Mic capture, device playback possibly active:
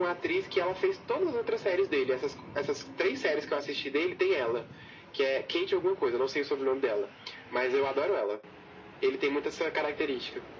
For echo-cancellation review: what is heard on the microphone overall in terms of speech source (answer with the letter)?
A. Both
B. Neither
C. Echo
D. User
C